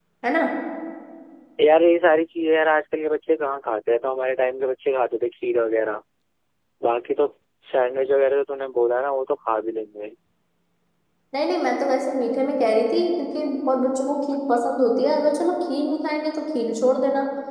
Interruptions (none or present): none